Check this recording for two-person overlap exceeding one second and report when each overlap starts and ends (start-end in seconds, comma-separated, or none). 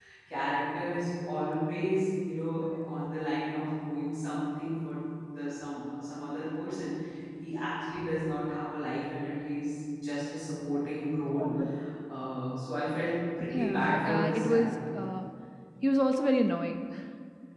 13.5-15.0